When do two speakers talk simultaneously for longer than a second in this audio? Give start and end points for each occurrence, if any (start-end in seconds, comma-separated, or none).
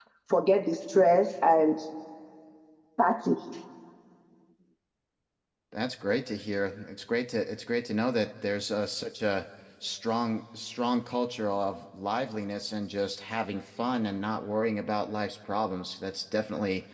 none